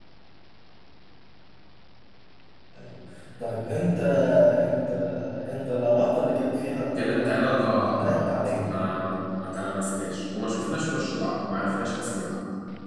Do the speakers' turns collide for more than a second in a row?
Yes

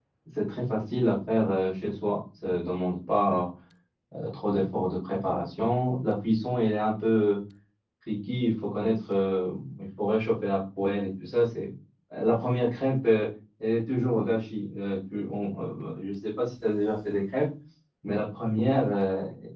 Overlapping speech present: No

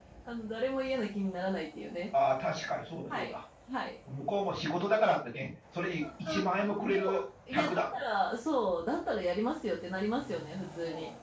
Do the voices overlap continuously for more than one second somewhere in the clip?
Yes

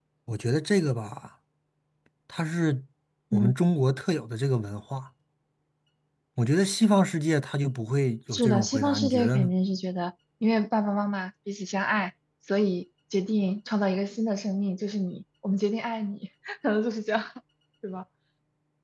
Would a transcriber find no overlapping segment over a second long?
No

